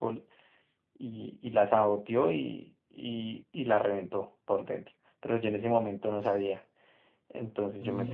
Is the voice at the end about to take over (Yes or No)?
Yes